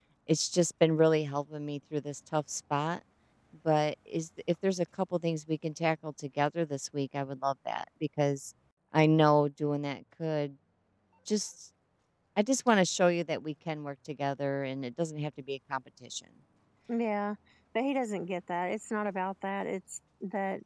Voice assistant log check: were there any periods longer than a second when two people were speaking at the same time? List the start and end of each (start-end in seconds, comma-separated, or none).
none